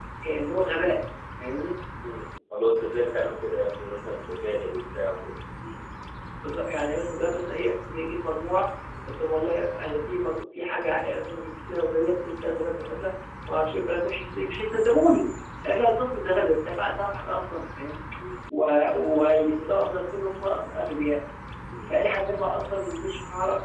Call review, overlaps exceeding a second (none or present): none